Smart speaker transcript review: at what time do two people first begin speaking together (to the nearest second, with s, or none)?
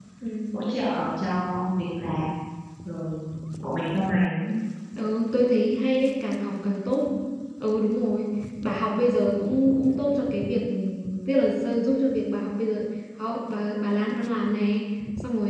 none